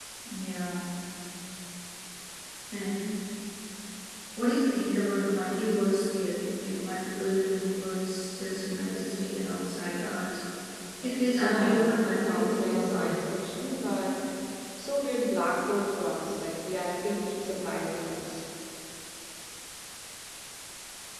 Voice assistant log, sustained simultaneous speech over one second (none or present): present